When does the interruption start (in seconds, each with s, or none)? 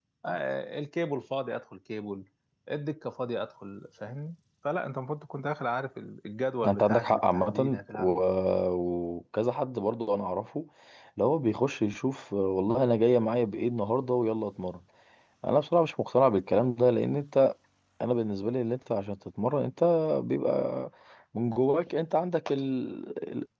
6.6 s